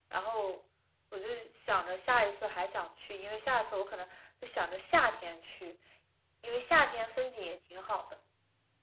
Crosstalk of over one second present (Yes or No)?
No